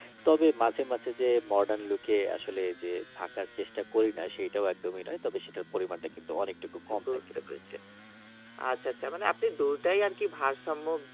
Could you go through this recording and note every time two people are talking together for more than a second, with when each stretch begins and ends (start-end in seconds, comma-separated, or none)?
none